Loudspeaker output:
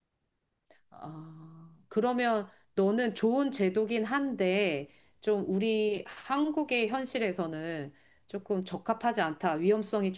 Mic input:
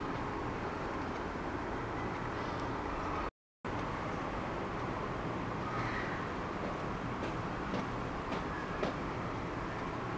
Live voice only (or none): none